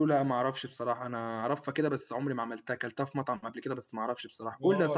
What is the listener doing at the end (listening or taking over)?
taking over